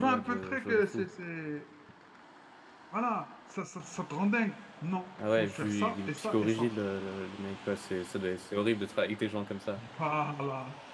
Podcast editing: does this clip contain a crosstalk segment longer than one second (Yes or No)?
Yes